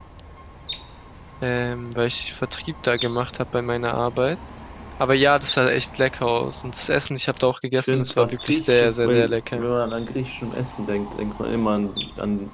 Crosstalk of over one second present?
Yes, from 7.8 s

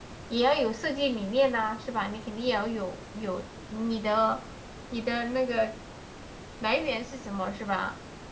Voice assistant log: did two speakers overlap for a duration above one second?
No

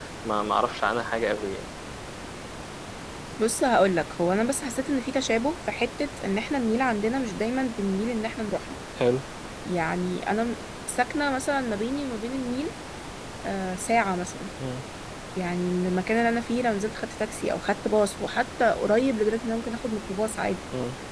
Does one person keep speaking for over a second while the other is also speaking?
No

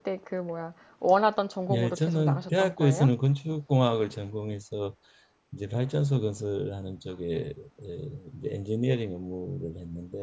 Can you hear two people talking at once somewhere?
Yes, from 1.7 s

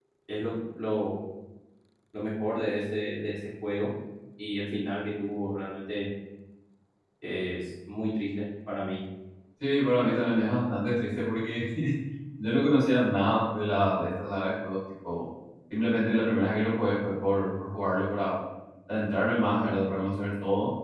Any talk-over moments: No

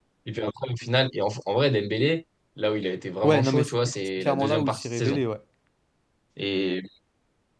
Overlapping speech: Yes, from 3.2 s

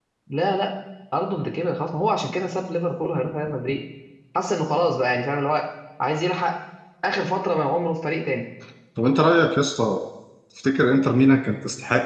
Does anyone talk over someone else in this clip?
No

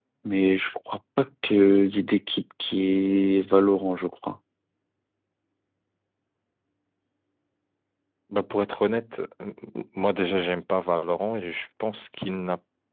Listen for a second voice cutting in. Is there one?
No

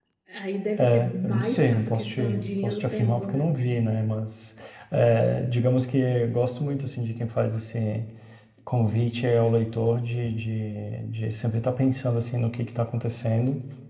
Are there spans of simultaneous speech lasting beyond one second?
Yes, from 0.8 s

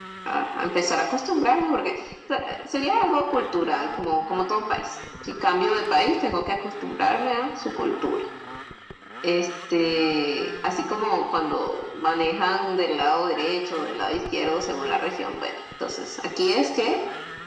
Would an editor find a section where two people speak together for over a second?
No

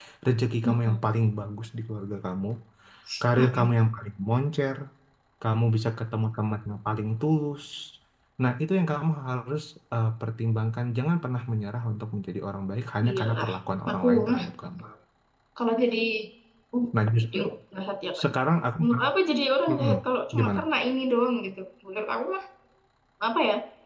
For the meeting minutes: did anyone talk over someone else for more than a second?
No

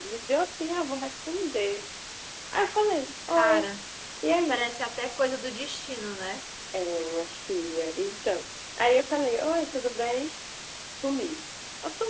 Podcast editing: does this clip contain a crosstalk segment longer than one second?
No

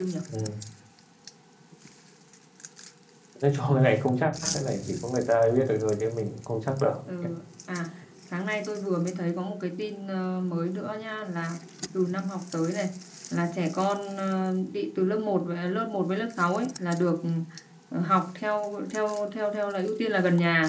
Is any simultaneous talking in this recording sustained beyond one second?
No

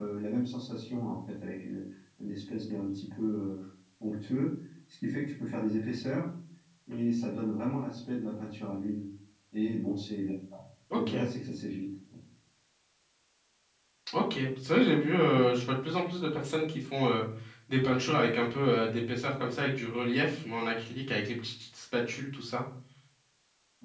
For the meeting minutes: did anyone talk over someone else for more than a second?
No

